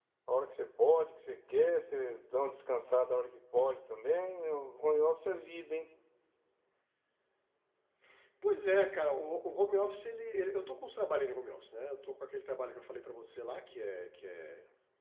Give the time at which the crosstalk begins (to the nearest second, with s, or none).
none